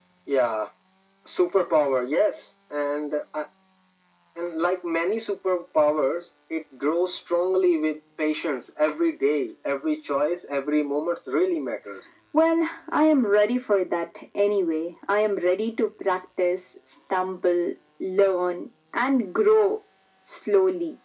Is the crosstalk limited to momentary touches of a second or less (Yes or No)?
Yes